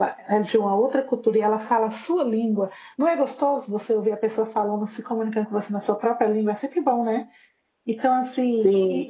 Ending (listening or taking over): taking over